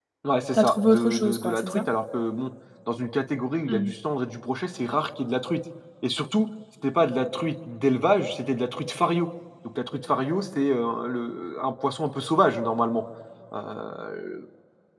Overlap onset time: 0.5 s

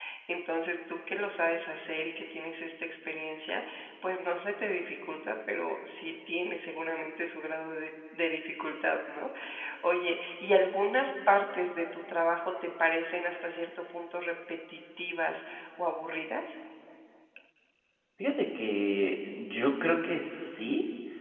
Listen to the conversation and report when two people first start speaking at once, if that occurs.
none

